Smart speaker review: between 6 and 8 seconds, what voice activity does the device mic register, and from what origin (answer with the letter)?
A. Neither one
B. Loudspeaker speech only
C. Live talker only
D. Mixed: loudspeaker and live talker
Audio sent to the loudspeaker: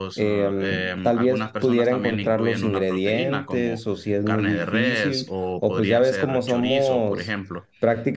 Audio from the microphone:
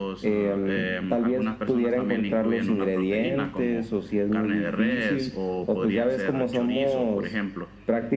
B